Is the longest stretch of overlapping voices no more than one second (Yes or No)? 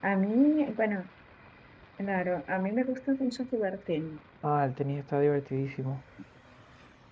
Yes